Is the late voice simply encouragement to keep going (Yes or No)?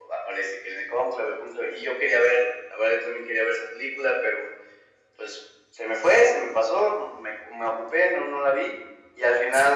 Yes